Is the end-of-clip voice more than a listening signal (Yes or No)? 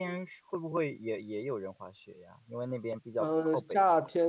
Yes